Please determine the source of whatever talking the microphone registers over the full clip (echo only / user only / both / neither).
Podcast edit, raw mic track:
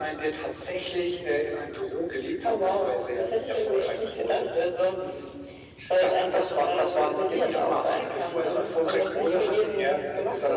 echo only